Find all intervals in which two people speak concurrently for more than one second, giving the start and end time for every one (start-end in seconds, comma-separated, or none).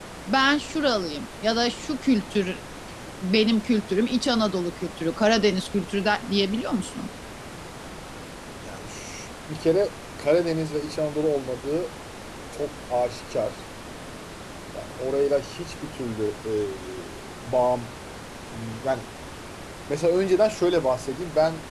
none